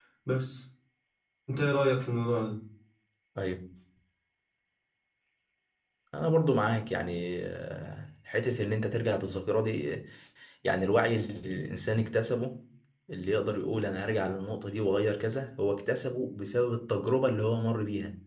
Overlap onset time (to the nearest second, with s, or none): none